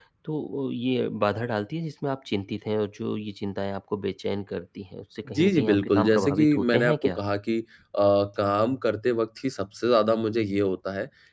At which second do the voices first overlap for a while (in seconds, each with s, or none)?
5.2 s